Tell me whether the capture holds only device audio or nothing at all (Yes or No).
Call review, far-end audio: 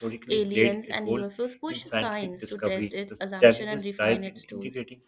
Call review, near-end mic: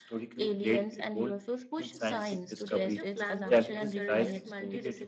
No